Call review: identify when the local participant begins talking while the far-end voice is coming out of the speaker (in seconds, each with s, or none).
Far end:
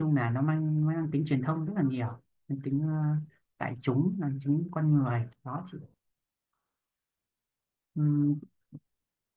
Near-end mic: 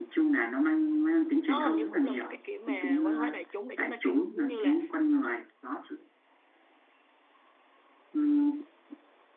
1.4 s